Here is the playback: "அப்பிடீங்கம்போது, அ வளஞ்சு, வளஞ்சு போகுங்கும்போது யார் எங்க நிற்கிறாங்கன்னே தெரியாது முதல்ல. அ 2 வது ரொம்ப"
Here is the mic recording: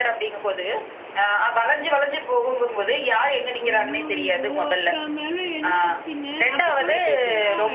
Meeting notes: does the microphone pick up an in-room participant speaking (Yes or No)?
Yes